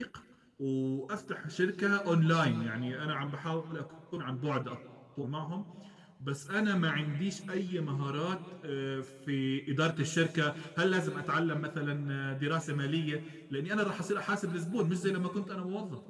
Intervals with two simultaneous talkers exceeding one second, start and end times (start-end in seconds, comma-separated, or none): none